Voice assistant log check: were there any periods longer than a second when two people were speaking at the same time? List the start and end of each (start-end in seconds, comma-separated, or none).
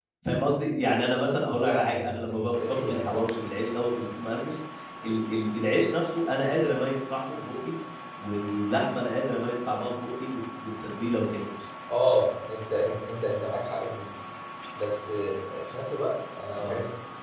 1.6-3.2